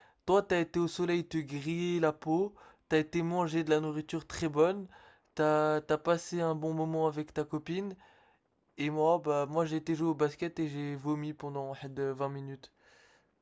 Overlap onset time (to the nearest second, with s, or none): none